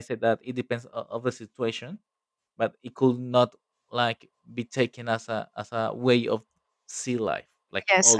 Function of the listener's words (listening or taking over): taking over